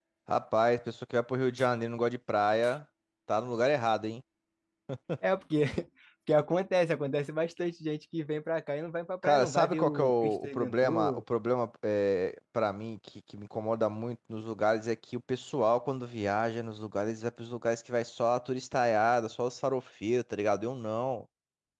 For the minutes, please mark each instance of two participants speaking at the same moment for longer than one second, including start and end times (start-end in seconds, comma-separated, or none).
9.2-11.2